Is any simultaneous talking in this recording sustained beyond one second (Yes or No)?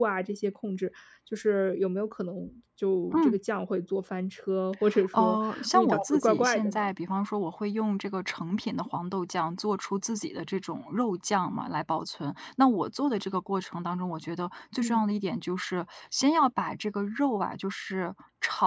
Yes